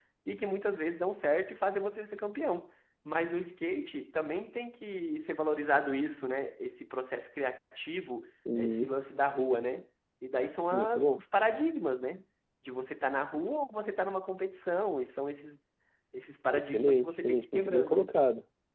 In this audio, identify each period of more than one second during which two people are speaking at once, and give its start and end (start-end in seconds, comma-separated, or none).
16.5-18.1